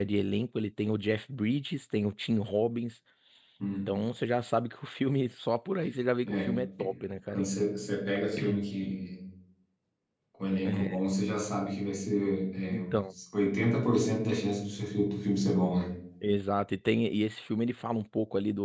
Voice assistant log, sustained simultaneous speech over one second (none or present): none